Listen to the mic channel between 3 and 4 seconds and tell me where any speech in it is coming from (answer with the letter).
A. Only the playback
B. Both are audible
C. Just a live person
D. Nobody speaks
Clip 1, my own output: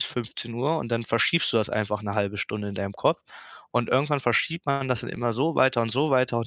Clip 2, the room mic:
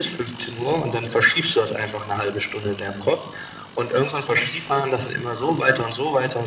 A